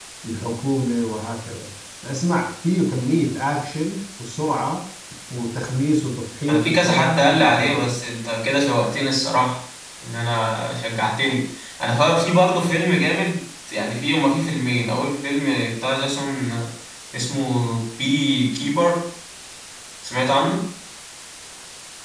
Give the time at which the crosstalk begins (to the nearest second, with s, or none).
6 s